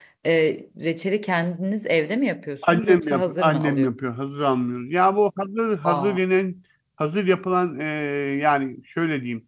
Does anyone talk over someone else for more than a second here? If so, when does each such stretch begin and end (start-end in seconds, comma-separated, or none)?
2.6-3.9